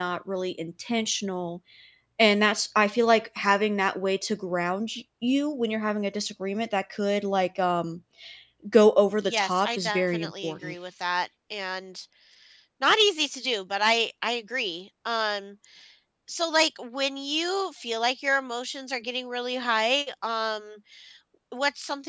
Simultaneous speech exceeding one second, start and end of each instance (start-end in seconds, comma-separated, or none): 9.2-10.8